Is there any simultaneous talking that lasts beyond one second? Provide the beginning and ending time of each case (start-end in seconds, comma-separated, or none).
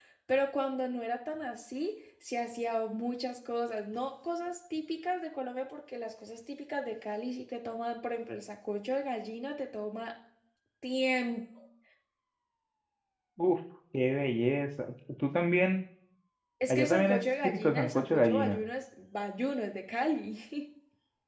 16.7-18.6